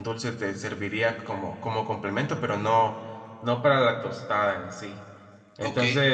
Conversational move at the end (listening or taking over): taking over